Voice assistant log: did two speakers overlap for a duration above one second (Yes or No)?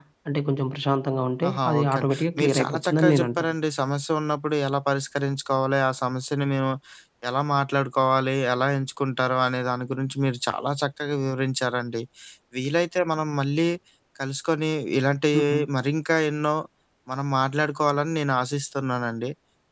Yes